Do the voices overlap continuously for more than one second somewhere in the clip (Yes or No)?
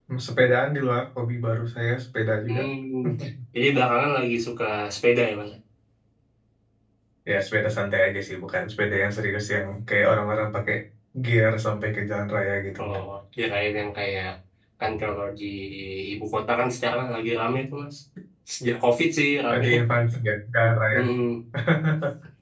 No